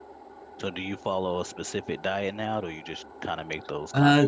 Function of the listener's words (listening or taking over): taking over